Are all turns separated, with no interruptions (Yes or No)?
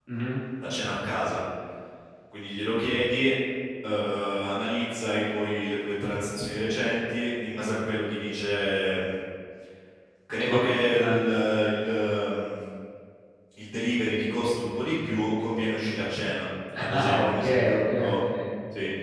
No